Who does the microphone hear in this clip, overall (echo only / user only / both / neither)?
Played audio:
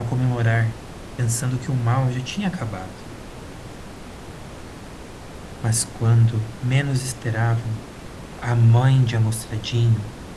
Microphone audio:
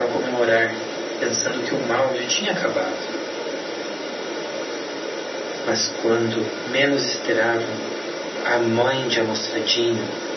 echo only